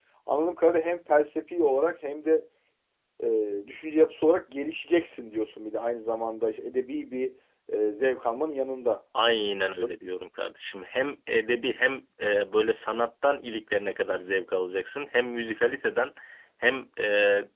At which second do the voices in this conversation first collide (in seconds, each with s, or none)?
none